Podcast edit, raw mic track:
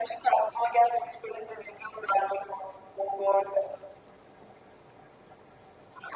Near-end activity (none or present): none